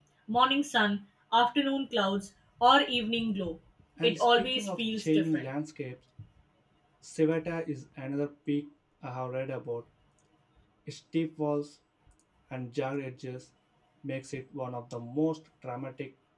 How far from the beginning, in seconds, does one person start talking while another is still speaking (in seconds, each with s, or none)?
4.0 s